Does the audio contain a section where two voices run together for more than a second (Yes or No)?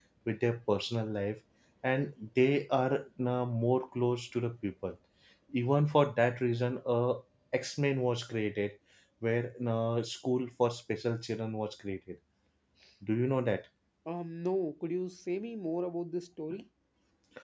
No